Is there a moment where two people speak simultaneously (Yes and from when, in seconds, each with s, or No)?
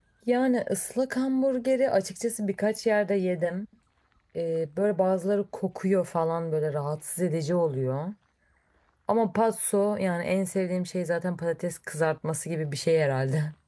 No